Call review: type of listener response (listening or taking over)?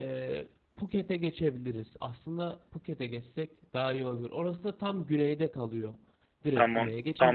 taking over